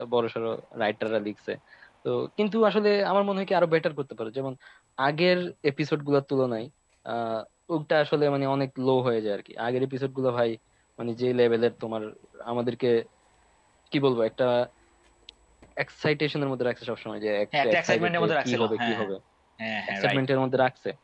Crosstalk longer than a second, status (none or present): present